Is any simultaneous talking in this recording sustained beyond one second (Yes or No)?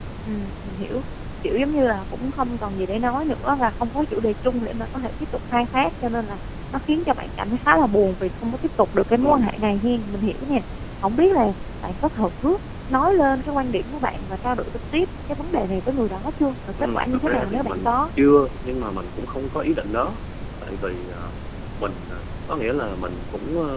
Yes